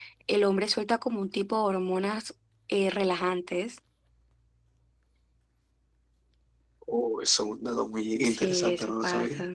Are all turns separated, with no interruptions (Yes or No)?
No